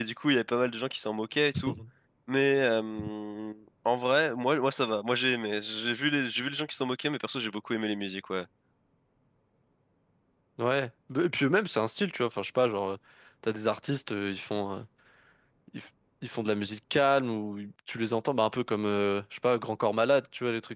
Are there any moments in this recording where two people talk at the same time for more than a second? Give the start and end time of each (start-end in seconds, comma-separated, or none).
none